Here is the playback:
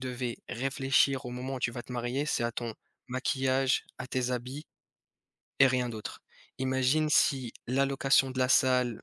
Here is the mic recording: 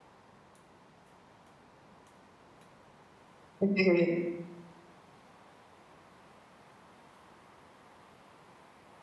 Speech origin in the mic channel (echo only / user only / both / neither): user only